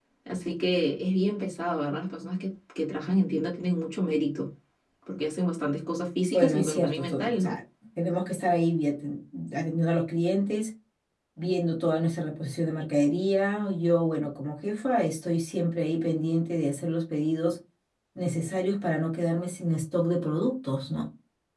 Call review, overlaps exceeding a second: present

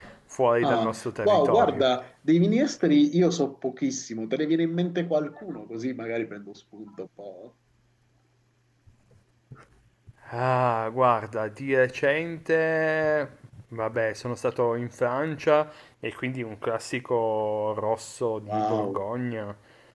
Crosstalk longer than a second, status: present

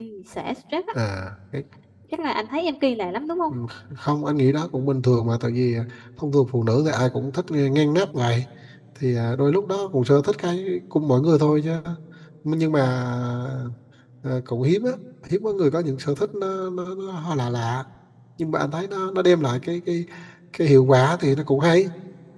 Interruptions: none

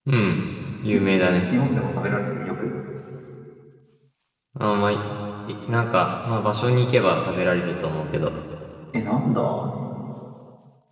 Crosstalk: none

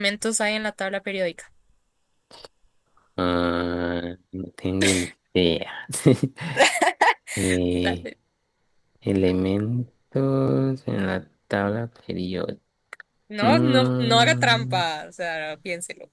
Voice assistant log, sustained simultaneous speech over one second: present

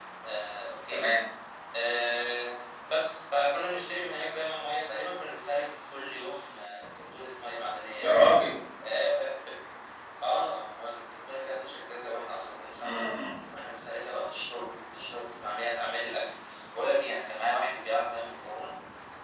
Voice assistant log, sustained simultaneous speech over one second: none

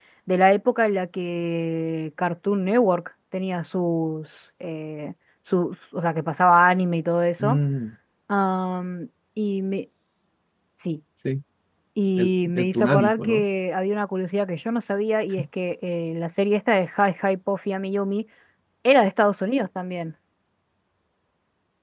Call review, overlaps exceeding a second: present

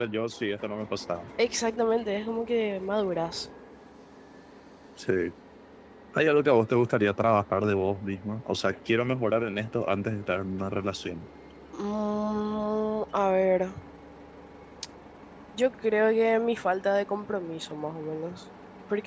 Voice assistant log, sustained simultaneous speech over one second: none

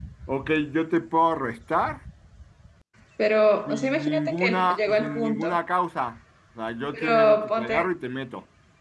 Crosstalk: present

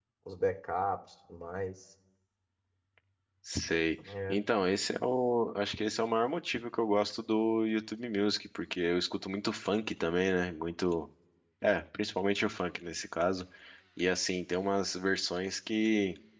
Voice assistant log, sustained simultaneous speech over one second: none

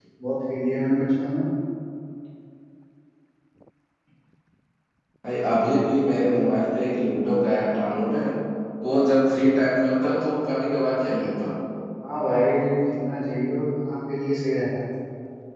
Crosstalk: none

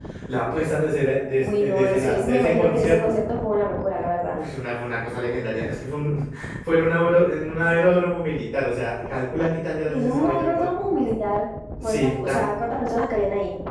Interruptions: present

